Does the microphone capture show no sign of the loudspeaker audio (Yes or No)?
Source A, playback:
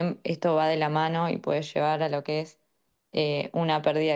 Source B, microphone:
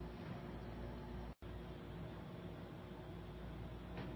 Yes